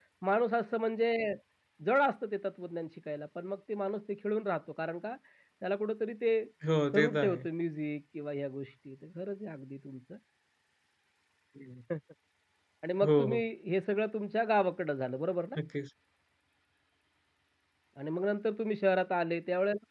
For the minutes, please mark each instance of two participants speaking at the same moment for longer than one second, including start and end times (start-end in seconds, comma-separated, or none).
none